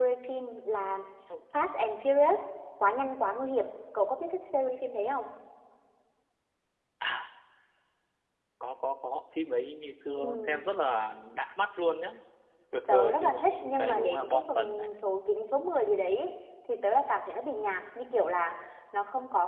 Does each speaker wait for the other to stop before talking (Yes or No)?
No